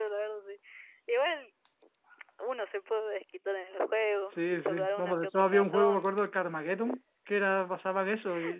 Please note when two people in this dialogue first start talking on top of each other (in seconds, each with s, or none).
4.3 s